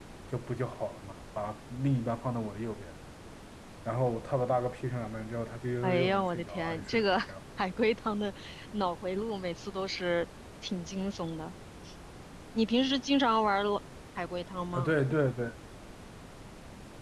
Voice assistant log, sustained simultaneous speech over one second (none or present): present